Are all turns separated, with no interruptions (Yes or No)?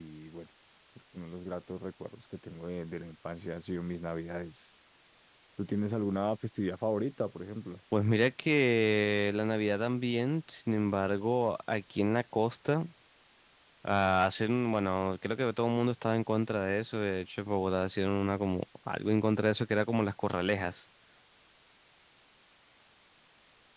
Yes